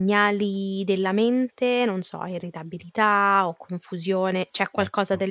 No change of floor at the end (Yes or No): Yes